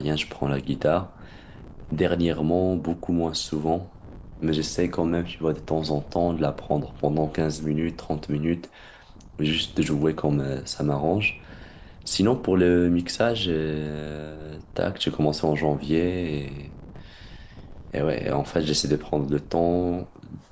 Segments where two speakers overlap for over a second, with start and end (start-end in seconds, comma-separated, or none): none